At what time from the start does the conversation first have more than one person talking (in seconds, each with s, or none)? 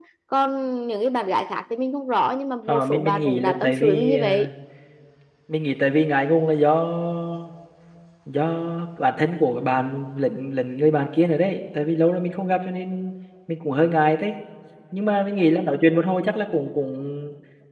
2.7 s